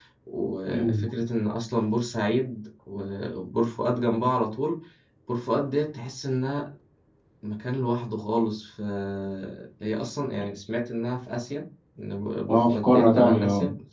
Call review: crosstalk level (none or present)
present